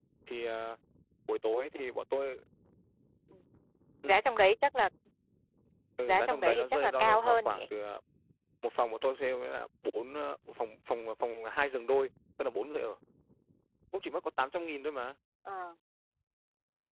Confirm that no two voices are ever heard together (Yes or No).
No